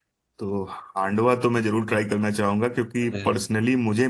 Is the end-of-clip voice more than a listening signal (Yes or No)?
No